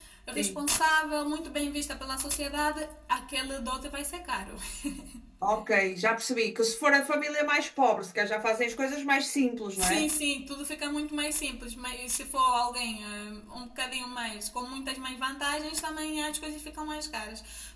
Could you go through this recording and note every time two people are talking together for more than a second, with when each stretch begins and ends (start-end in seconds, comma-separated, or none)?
none